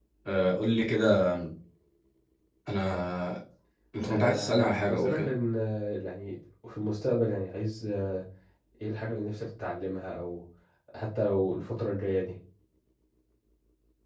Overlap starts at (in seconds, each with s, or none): 4.0 s